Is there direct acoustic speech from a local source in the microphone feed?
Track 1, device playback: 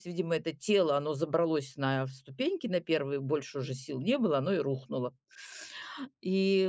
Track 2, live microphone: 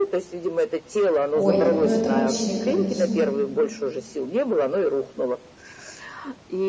Yes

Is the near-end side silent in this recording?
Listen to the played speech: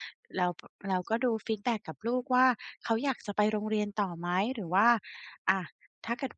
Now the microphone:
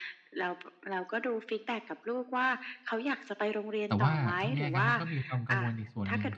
No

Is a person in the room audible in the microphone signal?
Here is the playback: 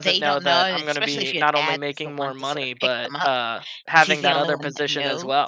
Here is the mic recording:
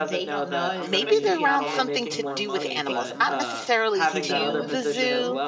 Yes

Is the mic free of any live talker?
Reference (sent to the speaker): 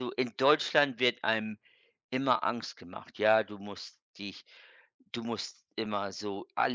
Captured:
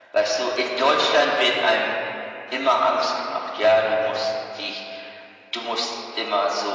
Yes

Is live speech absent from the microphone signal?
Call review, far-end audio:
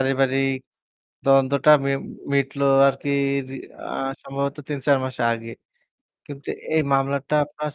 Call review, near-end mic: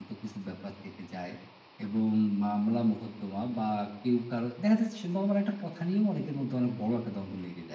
No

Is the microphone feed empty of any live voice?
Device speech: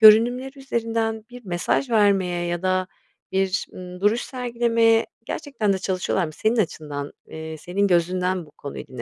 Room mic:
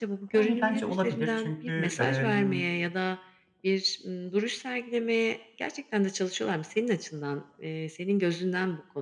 No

